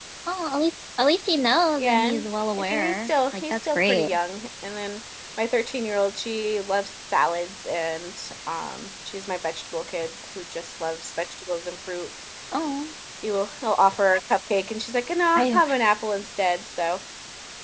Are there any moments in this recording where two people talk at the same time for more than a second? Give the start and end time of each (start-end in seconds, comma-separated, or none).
2.6-4.1